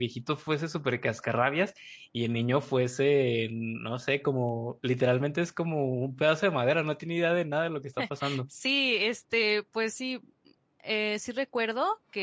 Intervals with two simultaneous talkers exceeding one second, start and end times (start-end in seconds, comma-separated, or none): none